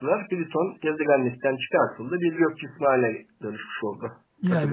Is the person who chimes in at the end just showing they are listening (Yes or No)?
No